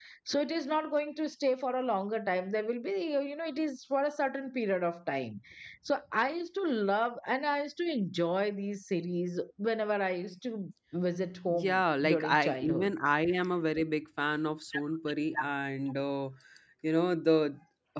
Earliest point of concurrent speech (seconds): 11.5 s

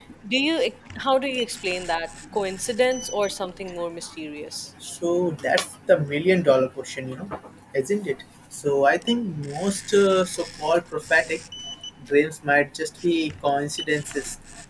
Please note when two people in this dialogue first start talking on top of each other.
none

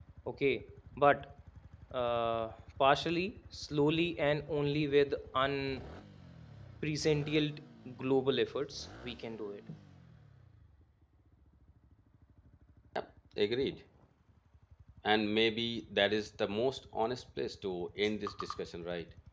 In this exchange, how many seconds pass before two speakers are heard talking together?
none

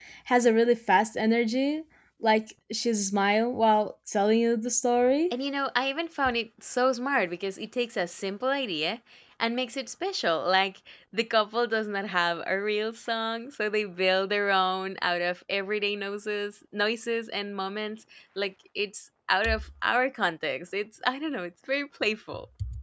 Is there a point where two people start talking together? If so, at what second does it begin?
none

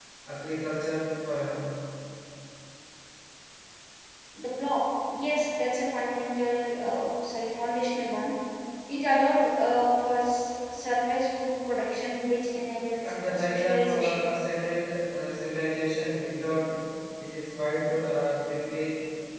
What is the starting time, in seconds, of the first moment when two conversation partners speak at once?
13.0 s

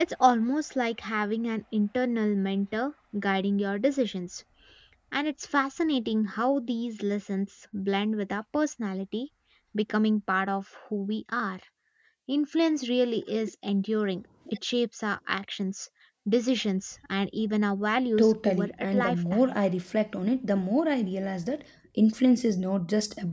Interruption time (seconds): 18.2 s

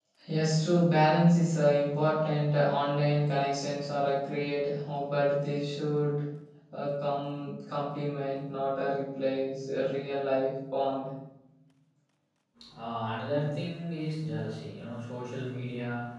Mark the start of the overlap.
none

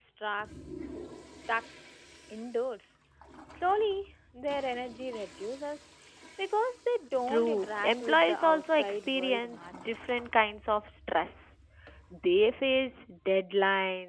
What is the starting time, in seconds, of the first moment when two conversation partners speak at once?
7.3 s

